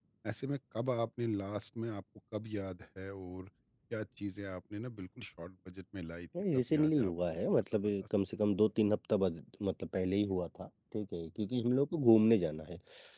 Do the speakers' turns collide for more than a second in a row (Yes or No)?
Yes